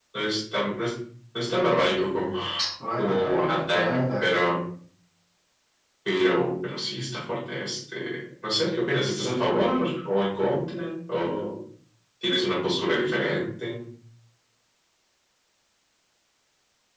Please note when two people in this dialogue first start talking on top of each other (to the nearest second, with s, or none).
3 s